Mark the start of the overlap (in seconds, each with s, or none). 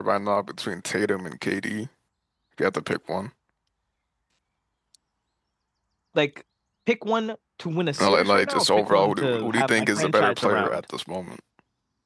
8.0 s